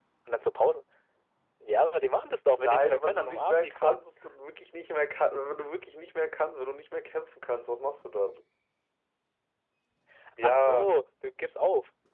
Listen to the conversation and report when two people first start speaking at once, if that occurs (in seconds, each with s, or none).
2.6 s